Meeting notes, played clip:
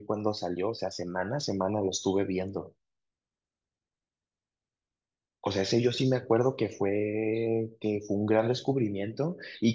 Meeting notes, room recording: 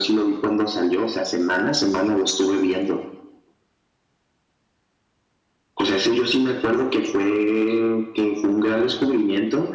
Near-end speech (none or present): none